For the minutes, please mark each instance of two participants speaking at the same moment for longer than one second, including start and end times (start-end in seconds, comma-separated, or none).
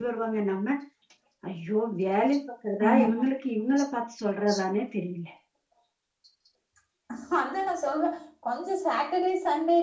none